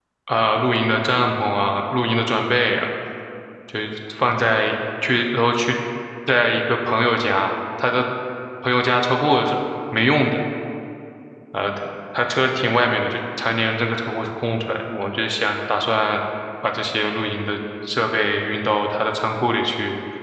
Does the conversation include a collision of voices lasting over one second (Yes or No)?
No